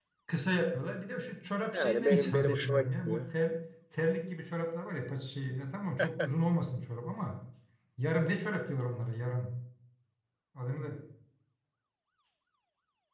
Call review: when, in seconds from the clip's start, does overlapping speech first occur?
2 s

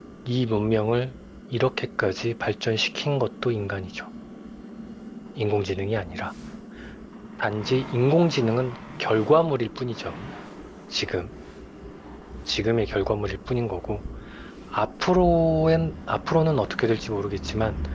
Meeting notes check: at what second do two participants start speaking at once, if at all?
none

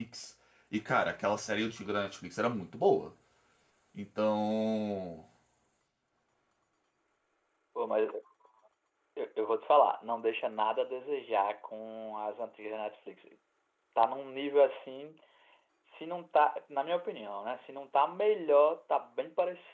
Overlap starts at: none

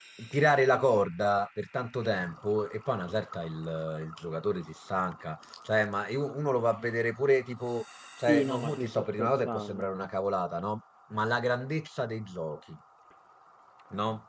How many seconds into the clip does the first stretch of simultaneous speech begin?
8 s

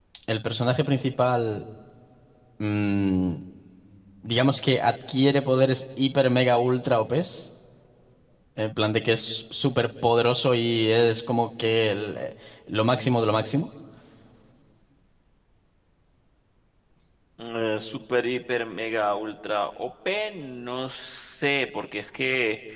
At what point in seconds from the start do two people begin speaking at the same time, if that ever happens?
none

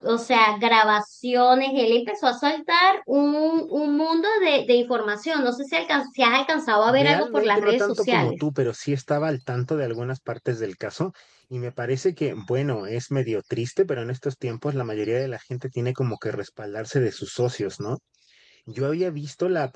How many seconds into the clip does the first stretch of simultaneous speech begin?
7 s

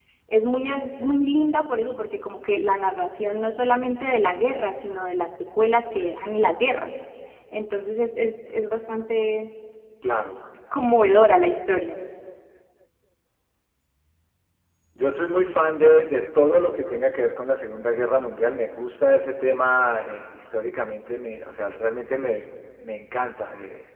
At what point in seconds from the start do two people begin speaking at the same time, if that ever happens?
none

